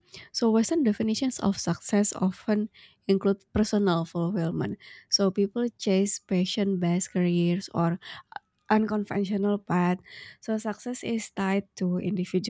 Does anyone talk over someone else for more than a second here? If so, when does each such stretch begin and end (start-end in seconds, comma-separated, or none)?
none